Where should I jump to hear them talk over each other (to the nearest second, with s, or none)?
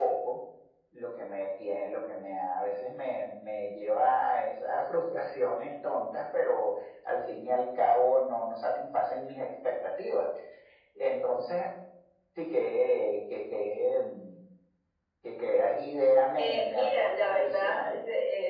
16 s